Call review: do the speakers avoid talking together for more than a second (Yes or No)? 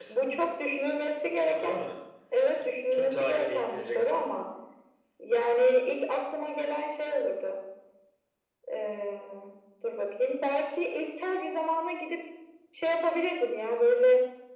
No